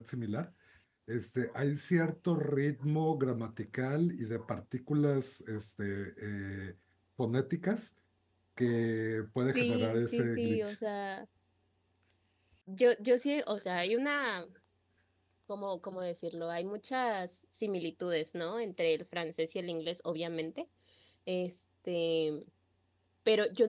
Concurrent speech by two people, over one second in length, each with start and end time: 9.5-10.8

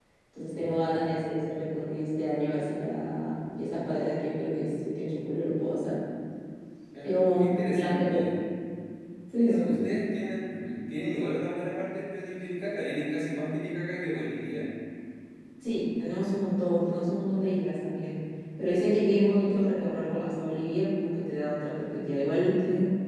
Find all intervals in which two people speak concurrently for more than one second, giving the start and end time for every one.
7.0-8.3

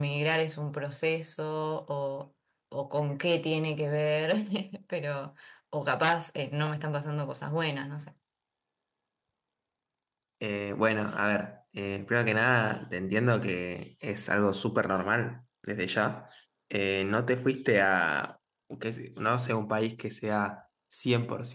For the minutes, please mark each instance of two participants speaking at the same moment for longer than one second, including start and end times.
none

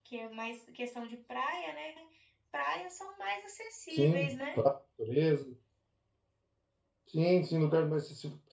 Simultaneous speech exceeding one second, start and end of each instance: none

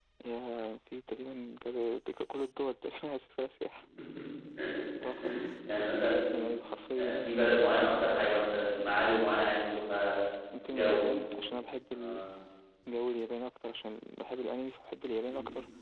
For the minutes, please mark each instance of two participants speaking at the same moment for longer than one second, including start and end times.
none

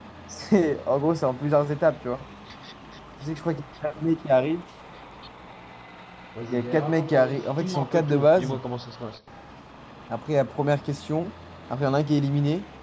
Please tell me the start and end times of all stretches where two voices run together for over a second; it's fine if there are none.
6.5-8.6

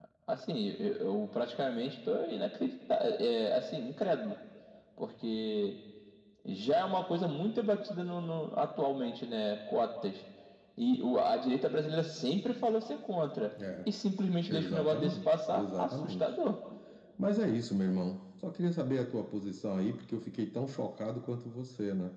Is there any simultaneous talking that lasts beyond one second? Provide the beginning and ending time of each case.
14.5-16.3

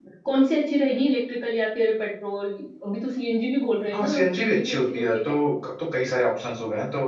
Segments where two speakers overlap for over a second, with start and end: 3.9-5.2

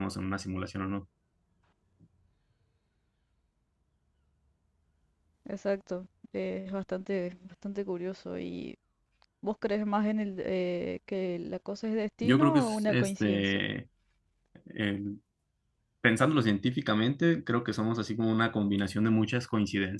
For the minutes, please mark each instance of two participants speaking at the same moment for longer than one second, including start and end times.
12.2-13.5

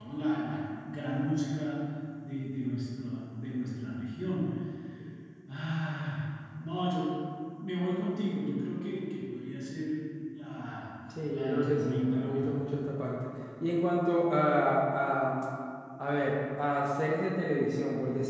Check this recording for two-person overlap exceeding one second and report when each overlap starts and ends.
11.3-12.7

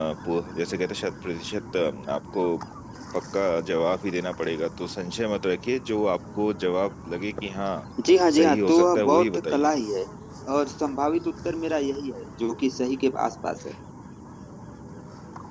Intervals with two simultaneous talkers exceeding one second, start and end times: 8.4-9.7

